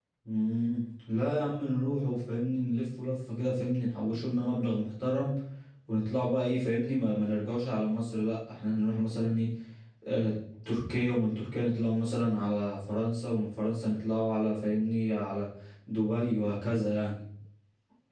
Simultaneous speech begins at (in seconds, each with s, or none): none